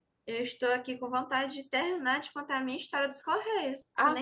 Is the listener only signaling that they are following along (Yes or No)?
No